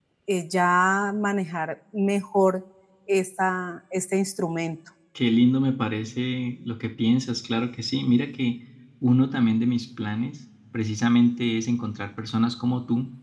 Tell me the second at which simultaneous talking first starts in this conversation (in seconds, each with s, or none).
none